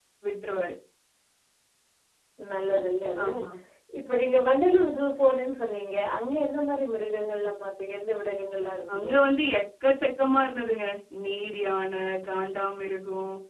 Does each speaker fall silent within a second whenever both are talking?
Yes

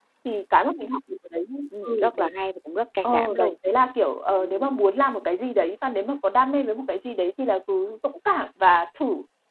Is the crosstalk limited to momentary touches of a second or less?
Yes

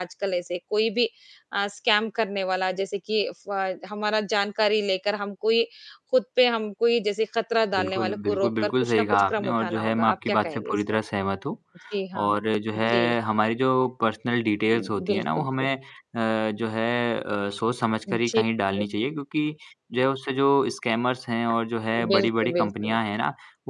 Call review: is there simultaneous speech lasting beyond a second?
Yes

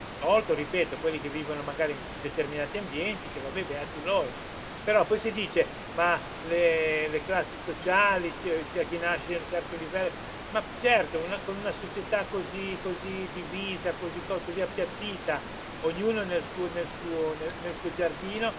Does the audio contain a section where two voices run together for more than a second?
No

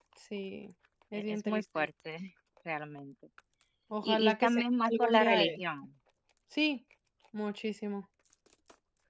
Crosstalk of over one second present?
Yes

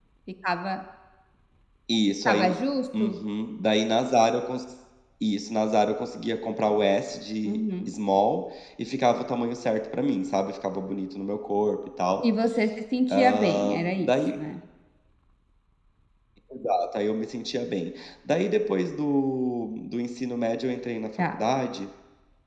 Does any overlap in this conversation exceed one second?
Yes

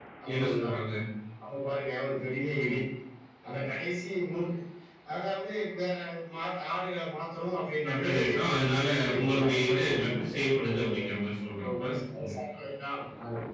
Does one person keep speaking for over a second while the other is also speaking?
Yes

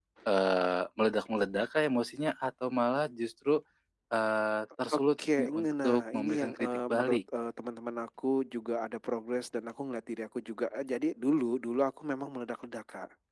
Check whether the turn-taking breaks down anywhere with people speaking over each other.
Yes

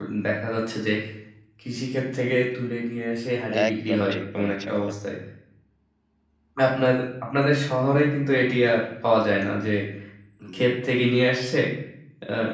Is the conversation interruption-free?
No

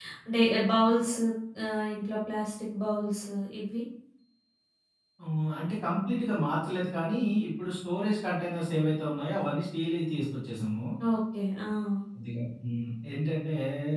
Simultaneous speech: No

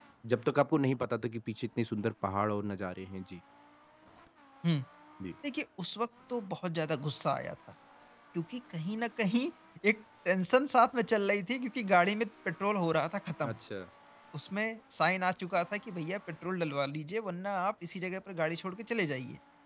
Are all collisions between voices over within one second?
Yes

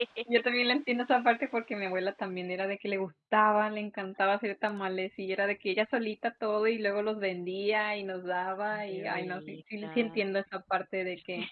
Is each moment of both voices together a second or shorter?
No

